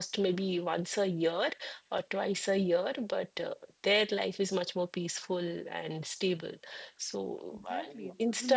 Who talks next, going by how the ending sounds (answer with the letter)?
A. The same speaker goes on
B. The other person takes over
B